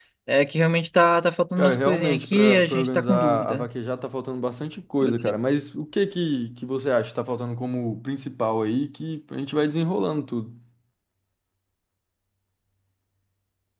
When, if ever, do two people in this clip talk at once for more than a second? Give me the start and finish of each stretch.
1.6-3.7

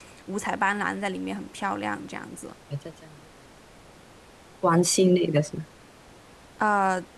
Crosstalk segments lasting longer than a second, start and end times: none

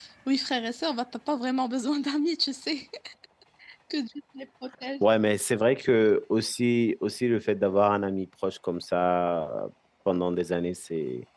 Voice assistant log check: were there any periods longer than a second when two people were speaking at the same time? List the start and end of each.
none

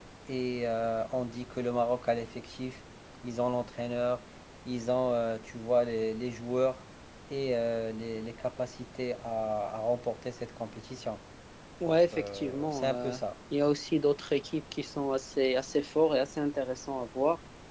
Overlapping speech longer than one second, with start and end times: 11.9-13.2

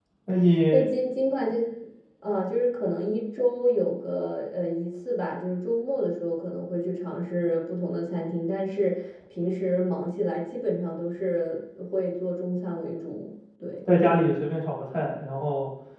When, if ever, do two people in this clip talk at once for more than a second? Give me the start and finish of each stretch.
none

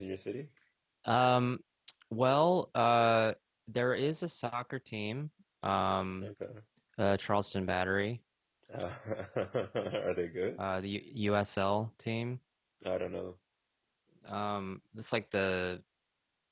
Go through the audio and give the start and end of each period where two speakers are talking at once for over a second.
none

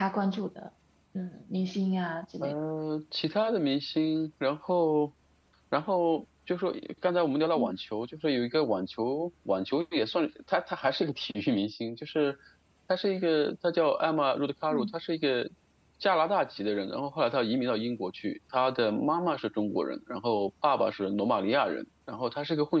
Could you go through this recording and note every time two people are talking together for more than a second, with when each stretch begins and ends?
none

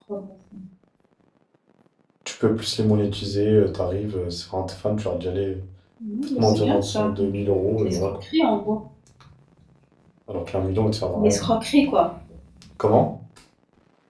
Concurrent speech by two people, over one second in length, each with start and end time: 6.4-8.1

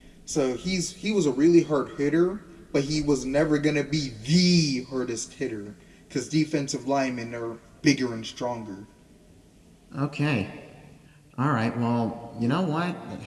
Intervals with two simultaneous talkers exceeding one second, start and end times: none

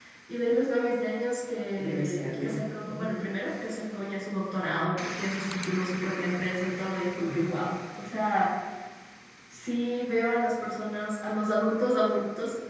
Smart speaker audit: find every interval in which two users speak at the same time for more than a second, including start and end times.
1.8-3.1

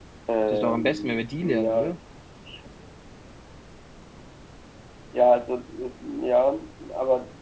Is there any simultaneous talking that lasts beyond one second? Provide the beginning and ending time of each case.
0.5-2.0

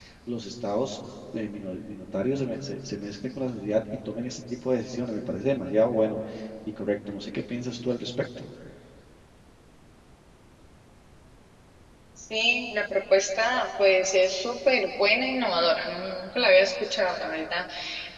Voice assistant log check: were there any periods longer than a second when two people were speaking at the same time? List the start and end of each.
none

